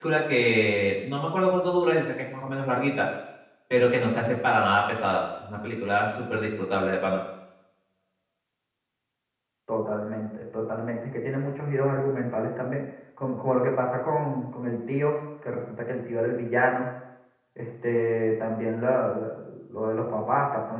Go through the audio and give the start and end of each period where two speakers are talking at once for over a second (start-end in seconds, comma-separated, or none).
none